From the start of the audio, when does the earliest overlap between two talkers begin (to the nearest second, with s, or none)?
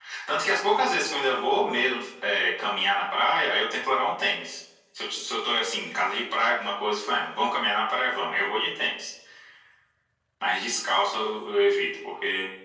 none